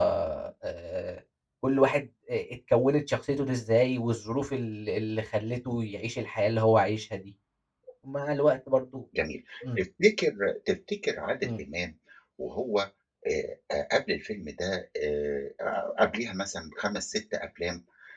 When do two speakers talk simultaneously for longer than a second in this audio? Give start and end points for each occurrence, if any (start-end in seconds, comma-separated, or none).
none